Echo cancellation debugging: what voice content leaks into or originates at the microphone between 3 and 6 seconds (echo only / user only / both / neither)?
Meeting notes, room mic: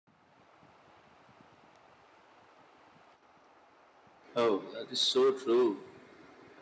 user only